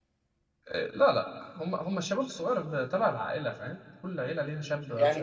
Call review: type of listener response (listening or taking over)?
taking over